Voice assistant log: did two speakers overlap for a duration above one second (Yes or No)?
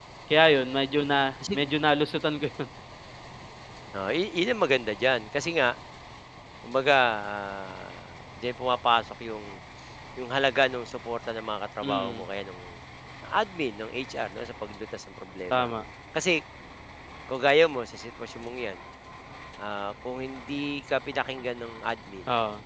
No